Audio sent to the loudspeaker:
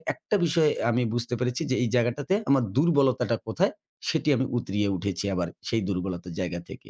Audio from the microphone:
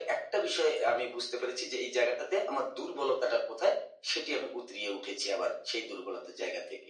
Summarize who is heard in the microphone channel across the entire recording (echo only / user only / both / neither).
echo only